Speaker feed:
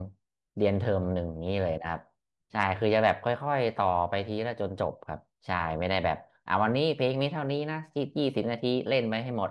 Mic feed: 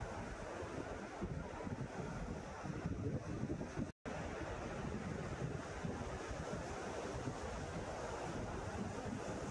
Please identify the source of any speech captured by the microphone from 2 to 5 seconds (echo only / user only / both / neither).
neither